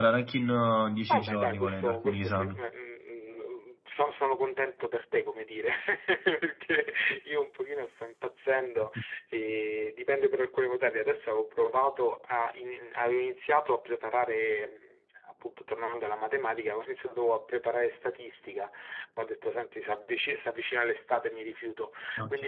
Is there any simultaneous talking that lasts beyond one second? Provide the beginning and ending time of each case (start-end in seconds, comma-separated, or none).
1.1-2.5